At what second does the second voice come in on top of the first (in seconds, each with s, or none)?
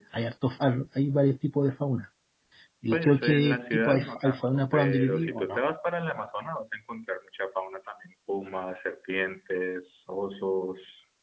2.9 s